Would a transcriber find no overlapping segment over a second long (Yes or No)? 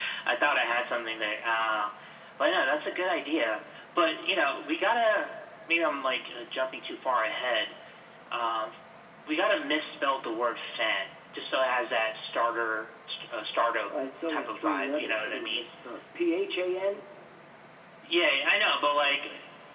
No